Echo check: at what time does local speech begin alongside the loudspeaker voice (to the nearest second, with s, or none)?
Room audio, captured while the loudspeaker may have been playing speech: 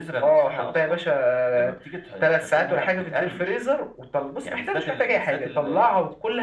none